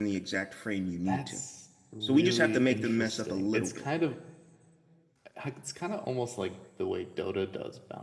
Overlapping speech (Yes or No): Yes